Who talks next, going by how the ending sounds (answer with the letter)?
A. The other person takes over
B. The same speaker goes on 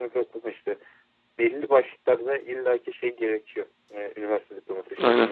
B